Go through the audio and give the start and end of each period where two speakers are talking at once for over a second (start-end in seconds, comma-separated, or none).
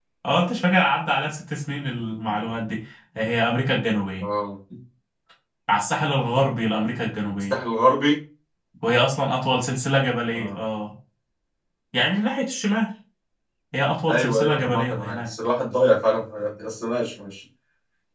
14.1-15.3